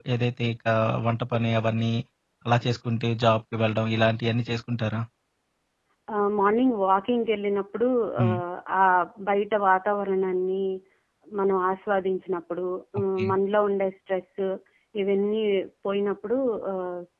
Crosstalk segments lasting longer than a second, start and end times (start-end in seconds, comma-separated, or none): none